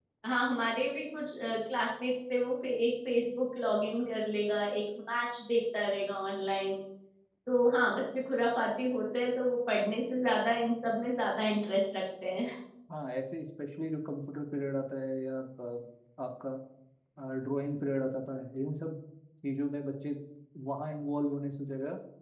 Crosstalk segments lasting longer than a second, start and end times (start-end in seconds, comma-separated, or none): none